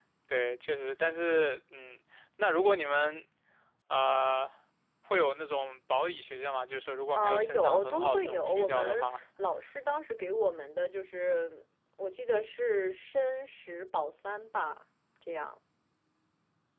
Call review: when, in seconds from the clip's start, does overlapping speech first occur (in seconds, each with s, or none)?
7.1 s